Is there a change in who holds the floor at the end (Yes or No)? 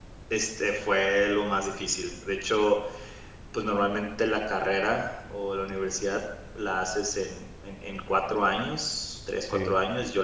No